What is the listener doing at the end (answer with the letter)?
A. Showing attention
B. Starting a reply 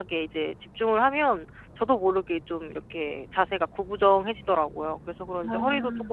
A